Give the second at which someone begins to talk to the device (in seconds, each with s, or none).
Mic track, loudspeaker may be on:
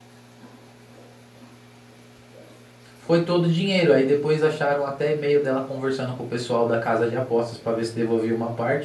3.0 s